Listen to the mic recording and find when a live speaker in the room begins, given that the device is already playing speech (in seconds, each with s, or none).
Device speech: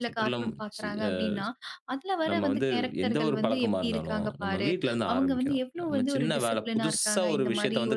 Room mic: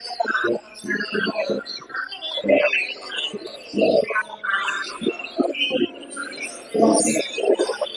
none